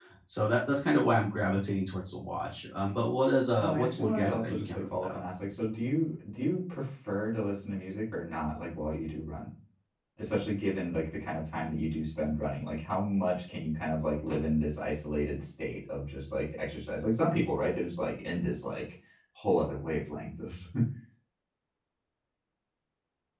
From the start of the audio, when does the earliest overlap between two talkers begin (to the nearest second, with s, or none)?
4 s